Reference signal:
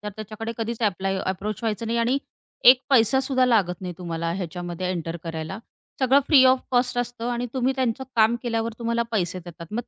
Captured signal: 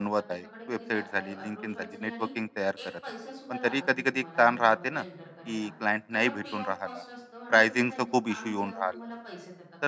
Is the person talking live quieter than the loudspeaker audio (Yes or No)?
No